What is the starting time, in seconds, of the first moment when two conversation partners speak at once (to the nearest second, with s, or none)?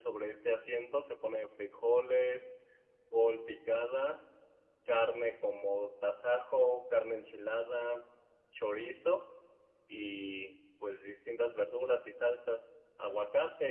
none